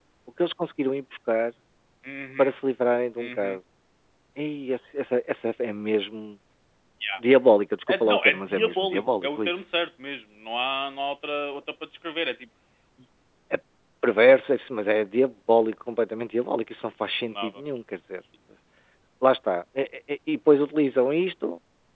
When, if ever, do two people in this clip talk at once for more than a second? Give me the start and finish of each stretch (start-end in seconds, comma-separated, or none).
7.9-9.6